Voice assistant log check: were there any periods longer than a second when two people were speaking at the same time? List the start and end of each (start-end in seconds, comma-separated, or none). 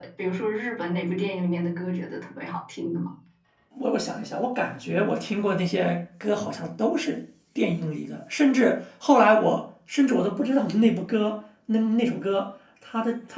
none